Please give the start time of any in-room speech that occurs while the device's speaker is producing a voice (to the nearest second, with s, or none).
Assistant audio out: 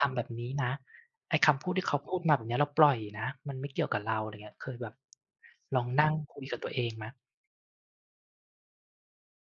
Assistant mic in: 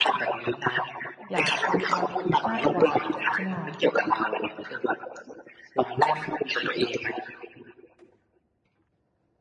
1 s